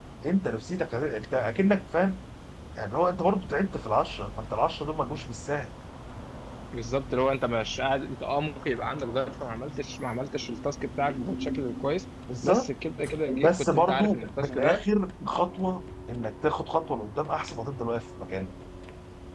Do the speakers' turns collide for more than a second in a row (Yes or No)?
Yes